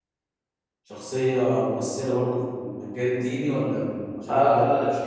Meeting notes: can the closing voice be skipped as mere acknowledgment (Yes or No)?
No